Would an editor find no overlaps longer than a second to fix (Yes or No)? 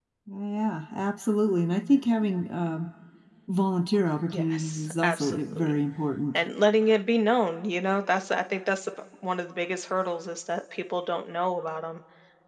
No